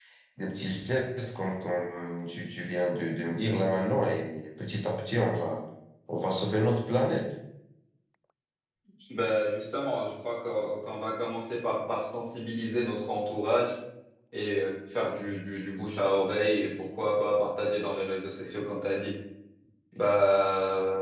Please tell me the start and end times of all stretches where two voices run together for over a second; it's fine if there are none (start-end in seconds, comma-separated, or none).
none